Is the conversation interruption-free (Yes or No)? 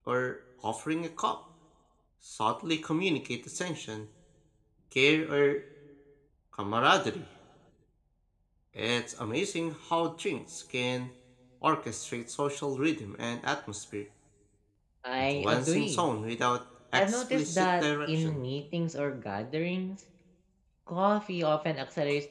No